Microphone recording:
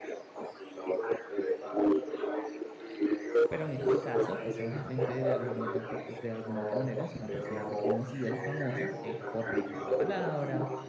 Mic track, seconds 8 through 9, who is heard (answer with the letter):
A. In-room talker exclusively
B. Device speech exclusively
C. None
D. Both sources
D